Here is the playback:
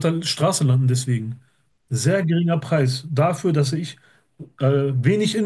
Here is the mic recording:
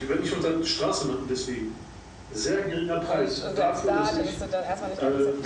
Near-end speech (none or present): present